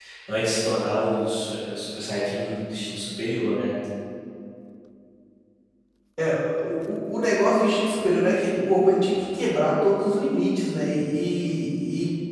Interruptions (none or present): none